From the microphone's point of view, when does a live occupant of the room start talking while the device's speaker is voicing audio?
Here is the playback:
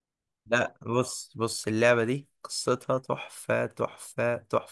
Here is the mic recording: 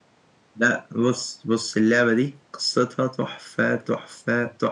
none

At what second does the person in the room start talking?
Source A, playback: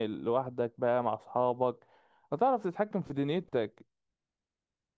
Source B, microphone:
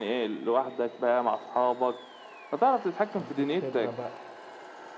3.2 s

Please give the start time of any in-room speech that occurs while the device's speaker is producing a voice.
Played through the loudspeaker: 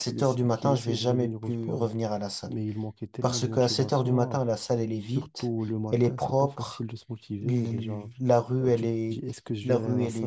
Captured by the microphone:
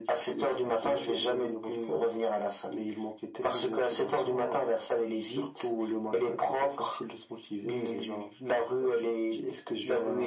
none

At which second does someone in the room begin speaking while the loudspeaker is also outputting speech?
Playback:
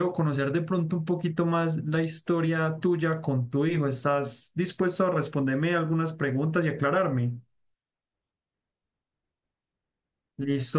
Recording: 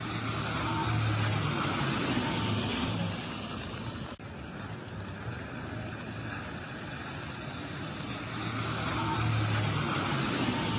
none

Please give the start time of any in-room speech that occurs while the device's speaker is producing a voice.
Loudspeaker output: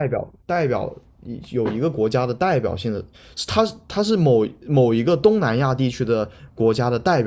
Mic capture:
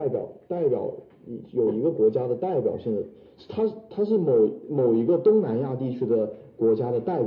none

